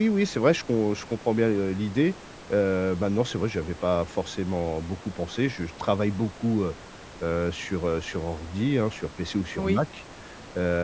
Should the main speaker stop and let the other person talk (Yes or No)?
No